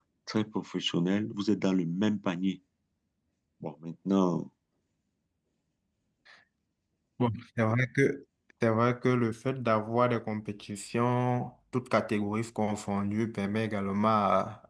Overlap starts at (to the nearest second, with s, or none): none